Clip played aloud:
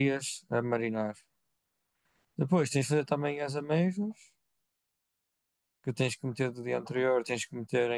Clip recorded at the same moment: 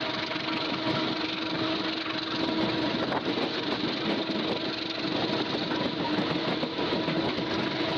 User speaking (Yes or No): No